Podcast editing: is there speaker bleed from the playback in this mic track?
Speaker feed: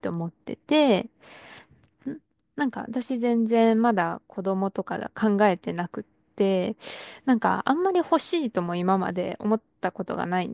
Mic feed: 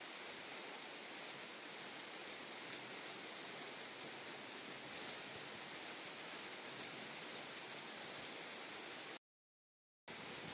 No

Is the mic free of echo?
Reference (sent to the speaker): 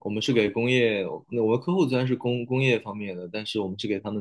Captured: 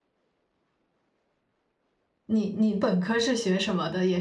Yes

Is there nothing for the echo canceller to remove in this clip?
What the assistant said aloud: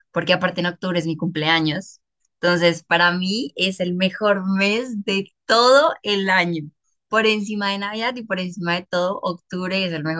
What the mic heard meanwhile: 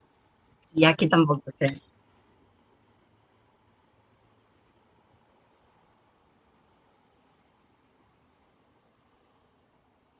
Yes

